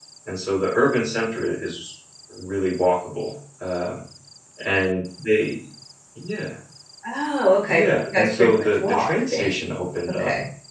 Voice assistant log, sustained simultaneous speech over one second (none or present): present